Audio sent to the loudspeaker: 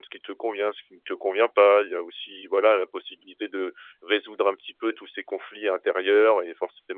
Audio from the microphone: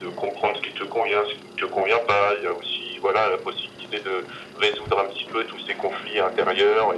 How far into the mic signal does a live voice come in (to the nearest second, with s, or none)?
none